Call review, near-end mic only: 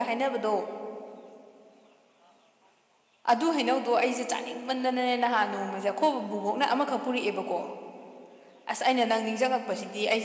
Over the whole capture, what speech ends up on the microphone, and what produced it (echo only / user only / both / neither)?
echo only